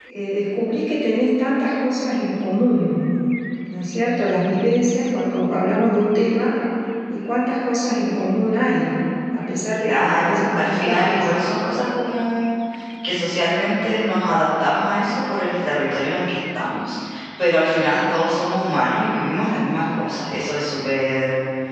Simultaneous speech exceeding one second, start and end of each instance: 9.8-11.3

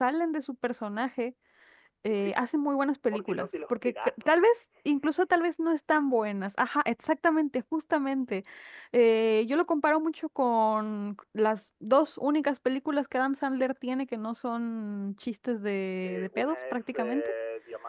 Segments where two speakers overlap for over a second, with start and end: 3.1-4.3, 16.0-17.3

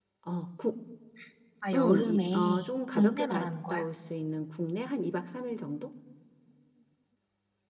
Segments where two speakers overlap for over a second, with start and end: 1.7-3.9

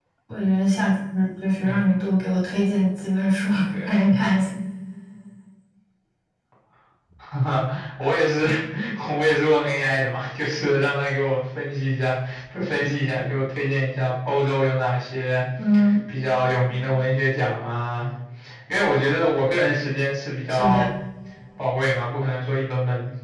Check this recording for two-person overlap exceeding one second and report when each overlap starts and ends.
none

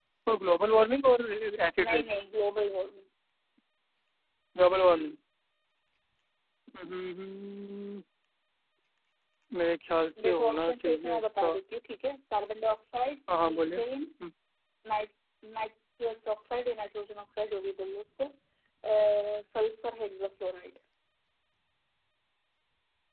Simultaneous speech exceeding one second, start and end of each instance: 10.2-11.6

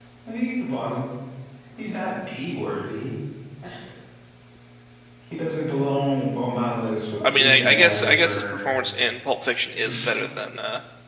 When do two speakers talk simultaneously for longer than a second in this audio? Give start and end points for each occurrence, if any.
7.3-8.7

